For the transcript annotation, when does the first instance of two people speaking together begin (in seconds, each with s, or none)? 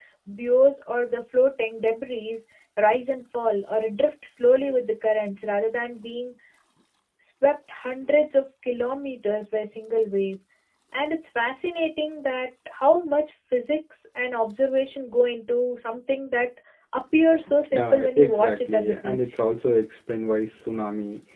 17.7 s